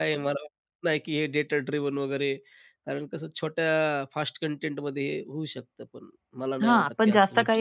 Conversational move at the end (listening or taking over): taking over